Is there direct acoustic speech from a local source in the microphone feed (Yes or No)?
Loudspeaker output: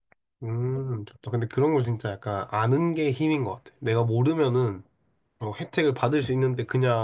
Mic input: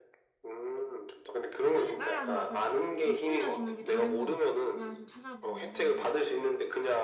Yes